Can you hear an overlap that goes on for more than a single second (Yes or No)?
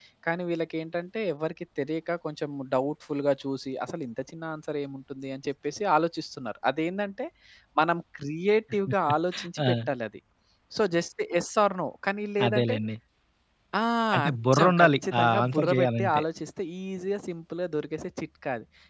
Yes